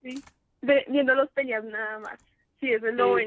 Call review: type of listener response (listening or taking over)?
taking over